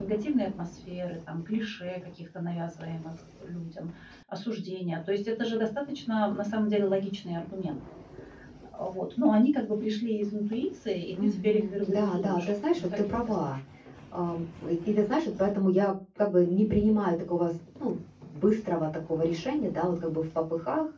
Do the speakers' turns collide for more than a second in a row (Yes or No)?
Yes